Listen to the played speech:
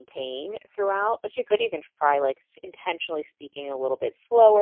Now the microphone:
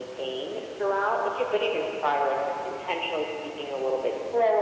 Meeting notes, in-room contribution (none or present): none